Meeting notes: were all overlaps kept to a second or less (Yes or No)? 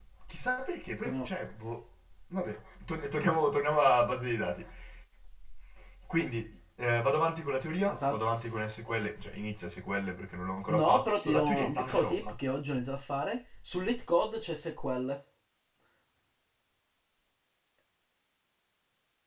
No